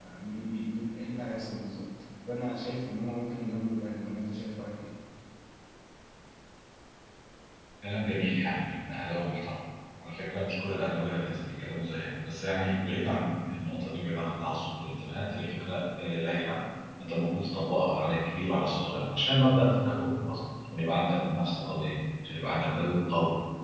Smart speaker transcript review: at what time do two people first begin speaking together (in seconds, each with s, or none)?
none